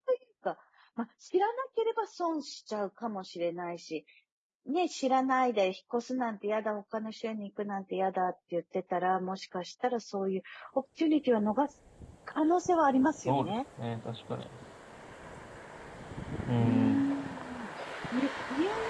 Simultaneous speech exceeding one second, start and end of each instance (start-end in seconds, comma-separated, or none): none